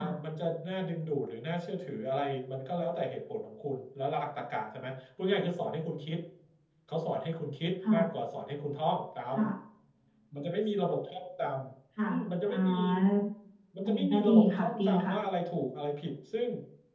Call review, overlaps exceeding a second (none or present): present